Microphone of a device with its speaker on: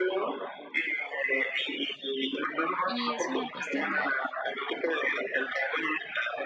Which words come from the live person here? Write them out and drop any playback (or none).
Y es una cuestión de,